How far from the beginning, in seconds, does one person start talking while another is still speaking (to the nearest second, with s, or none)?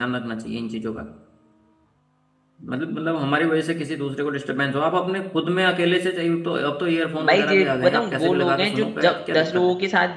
7 s